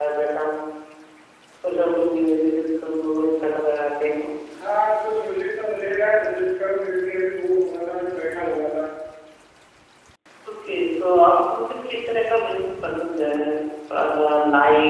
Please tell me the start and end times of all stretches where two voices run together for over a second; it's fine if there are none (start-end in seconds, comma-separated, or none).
none